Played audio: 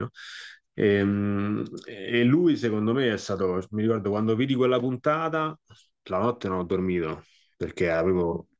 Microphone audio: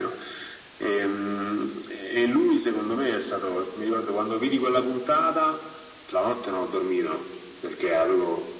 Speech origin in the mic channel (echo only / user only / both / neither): echo only